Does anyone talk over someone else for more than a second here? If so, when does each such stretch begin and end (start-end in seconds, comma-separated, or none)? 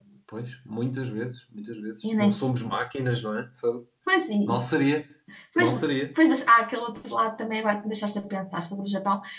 none